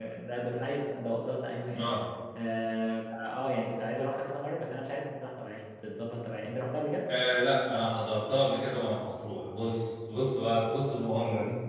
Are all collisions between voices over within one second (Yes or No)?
Yes